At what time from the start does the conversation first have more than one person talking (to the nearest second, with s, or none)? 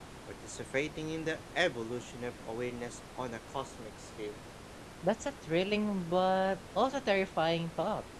none